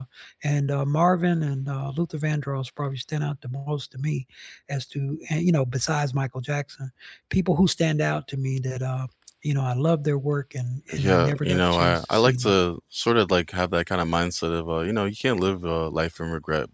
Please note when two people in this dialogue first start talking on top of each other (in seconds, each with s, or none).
10.9 s